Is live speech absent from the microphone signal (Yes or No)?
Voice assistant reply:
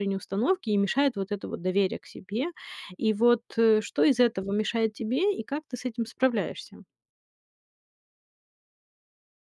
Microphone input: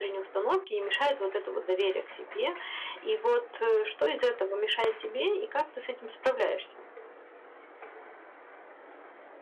Yes